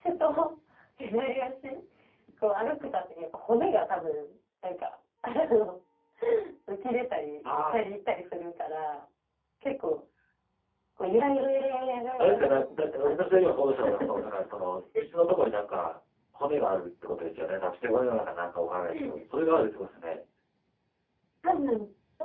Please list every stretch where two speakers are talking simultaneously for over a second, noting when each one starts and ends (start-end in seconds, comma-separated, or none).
12.2-13.5